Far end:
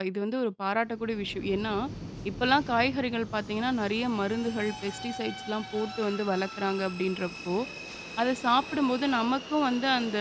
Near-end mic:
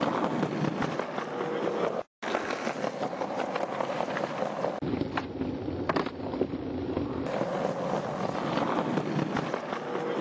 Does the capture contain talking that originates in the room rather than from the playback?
No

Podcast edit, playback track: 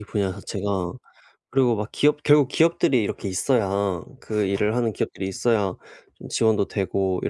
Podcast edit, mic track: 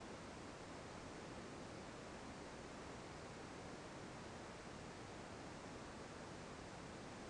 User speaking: No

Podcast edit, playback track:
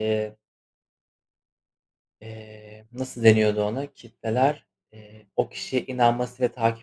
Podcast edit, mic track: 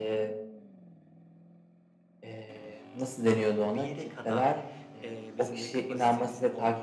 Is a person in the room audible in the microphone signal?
Yes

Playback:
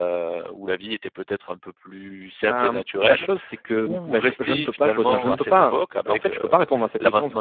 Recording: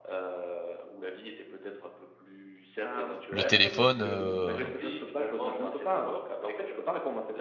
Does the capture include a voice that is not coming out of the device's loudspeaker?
Yes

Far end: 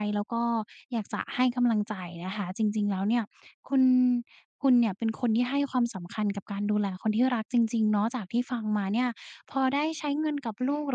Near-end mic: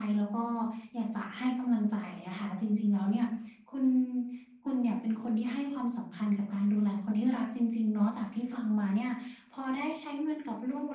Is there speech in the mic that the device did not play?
No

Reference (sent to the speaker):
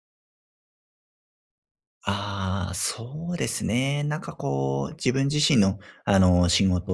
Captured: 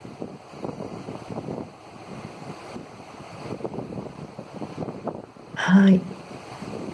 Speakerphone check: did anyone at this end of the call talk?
Yes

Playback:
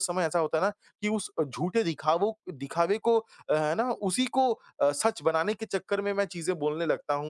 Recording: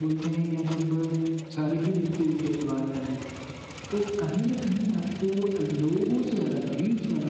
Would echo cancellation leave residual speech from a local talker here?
Yes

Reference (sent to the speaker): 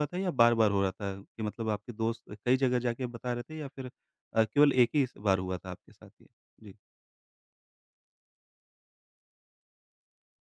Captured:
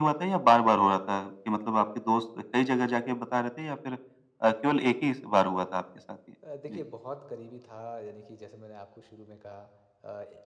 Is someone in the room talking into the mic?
Yes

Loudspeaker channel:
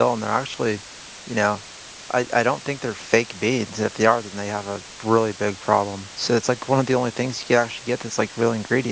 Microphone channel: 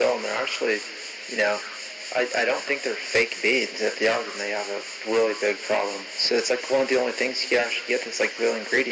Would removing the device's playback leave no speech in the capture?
Yes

